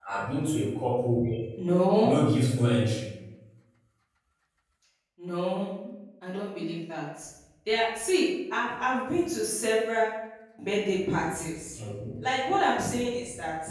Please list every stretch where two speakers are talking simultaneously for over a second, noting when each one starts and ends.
none

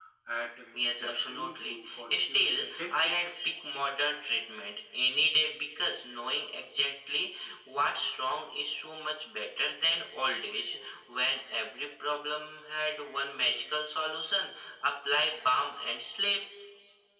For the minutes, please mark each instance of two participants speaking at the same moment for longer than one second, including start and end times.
0.7-3.3

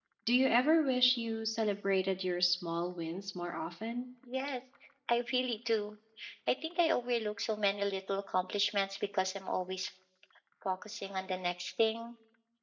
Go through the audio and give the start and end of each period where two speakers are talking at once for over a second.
none

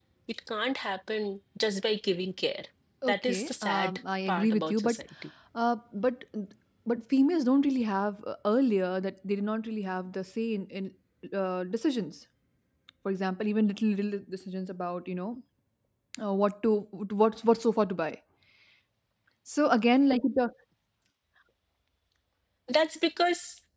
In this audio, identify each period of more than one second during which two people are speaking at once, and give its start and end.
3.1-5.0

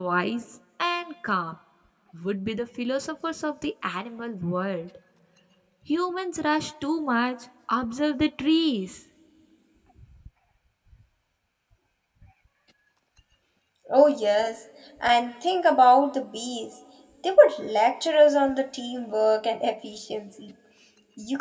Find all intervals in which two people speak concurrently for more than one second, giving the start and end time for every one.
none

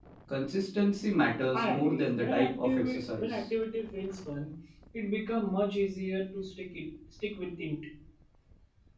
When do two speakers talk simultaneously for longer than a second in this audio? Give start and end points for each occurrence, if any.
1.5-3.4

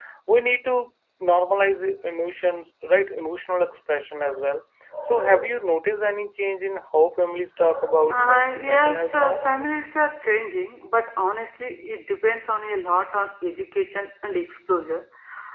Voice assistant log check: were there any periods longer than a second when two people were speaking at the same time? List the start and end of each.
8.1-9.4

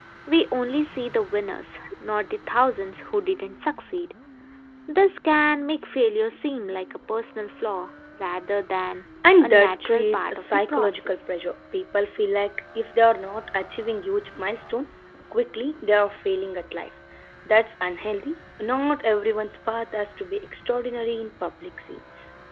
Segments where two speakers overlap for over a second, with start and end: 9.4-11.2

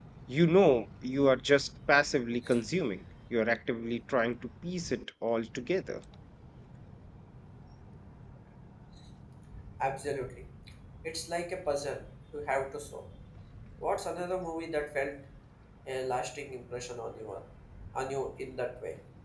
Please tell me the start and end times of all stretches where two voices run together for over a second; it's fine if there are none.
none

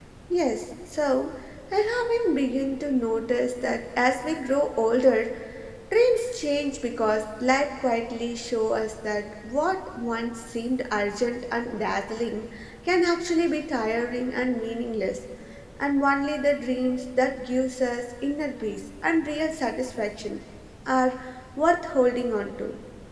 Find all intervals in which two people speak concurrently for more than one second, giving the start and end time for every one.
none

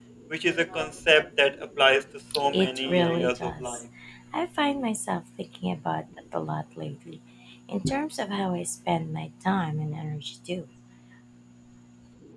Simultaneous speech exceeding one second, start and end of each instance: 2.5-3.8

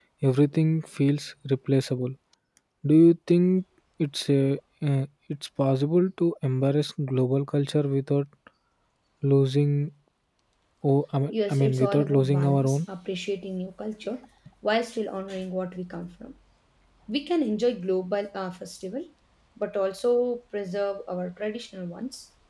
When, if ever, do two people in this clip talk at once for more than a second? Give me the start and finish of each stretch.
11.3-12.8

